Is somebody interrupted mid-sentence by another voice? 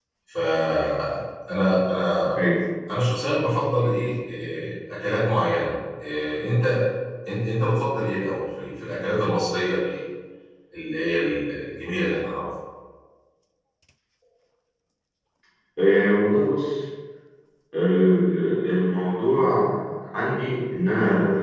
No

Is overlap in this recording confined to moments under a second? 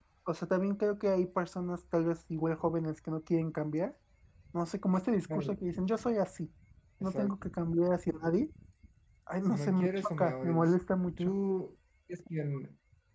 No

